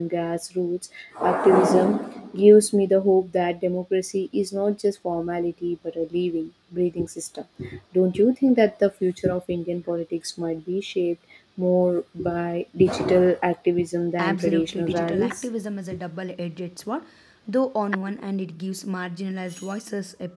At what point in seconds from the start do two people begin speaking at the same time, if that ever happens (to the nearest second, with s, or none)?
14 s